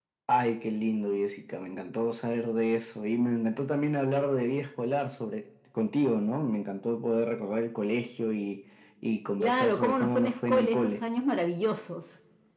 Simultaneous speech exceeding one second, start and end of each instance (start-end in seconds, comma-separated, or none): 9.4-11.0